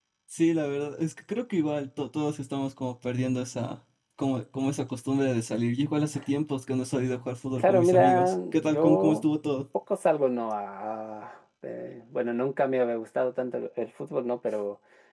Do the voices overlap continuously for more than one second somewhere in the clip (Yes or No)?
Yes